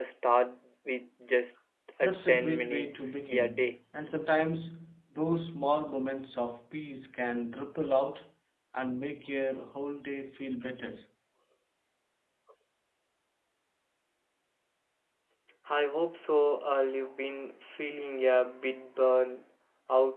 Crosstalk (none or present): present